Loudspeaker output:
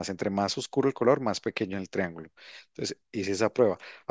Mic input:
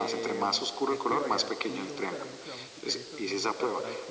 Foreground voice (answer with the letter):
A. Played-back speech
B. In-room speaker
A